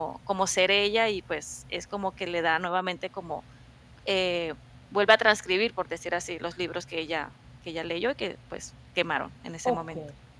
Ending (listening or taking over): taking over